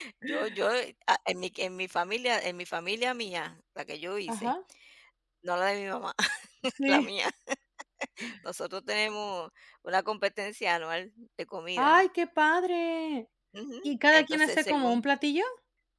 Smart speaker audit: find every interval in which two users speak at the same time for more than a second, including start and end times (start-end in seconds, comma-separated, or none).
13.8-15.0